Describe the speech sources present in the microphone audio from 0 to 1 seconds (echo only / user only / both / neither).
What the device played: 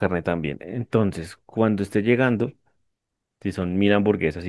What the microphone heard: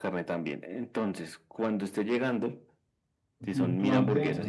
echo only